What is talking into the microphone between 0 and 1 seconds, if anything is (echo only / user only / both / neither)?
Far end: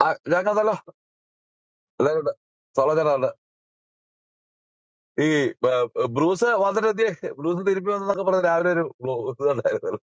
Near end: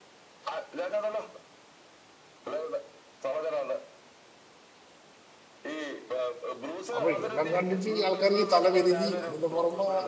echo only